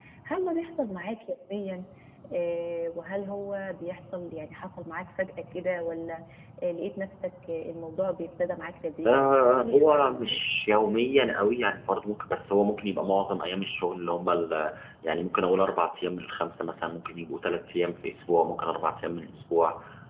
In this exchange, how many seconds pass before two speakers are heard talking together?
9.1 s

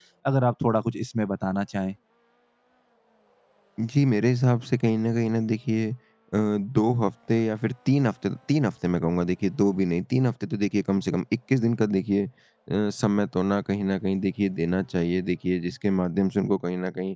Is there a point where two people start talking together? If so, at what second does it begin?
none

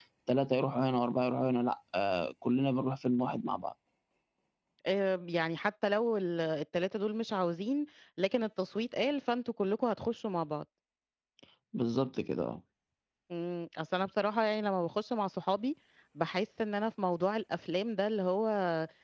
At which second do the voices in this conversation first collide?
none

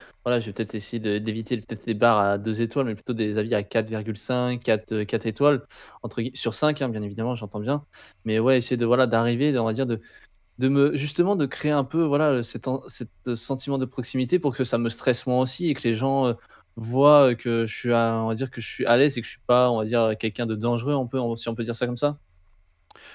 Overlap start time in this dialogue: none

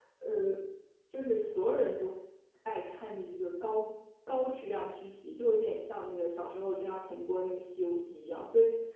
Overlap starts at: none

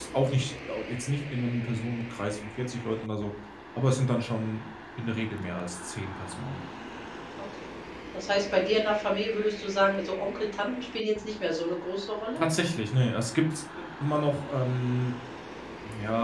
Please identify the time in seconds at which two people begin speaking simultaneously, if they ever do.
none

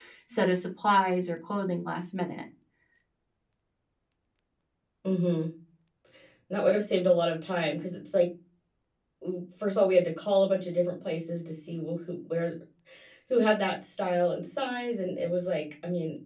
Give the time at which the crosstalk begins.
none

